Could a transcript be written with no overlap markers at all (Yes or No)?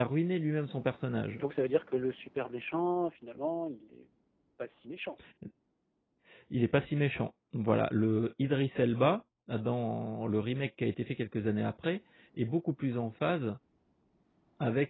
Yes